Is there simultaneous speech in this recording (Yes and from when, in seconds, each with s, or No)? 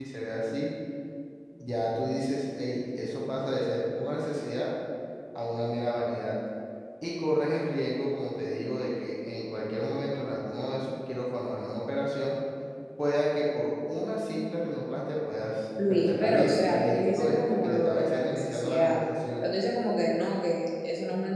Yes, from 15.8 s